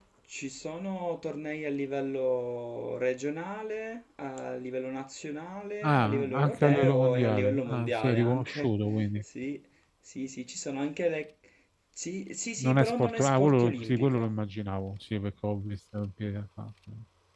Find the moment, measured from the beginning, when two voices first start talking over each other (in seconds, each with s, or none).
5.8 s